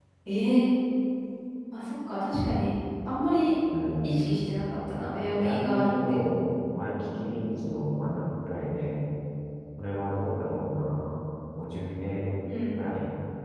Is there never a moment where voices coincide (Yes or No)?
No